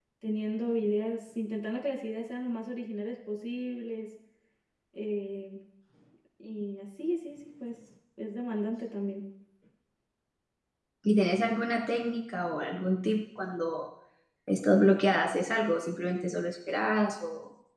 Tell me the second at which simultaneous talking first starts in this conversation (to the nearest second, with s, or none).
none